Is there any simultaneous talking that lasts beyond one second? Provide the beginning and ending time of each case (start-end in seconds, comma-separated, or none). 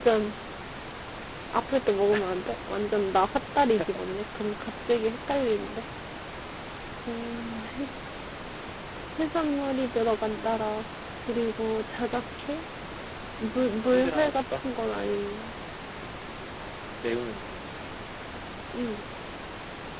13.4-14.7